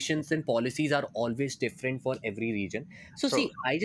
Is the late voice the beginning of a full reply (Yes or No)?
No